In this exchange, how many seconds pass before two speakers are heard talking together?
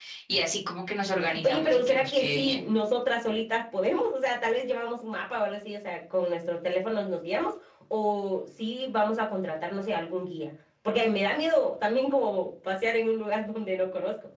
1.2 s

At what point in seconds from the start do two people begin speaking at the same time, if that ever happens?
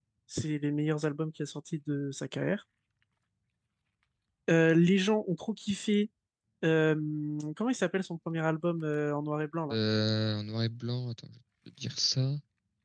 none

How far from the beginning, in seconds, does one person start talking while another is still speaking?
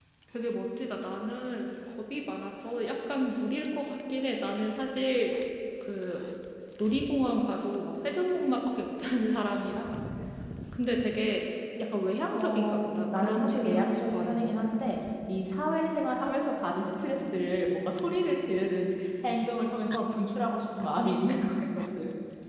12.3 s

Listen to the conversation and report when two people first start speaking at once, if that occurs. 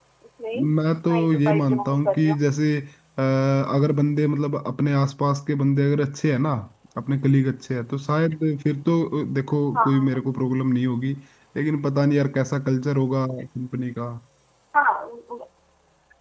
1.1 s

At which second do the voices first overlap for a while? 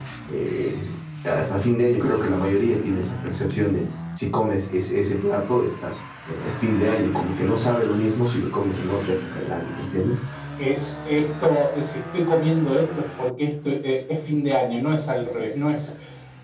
none

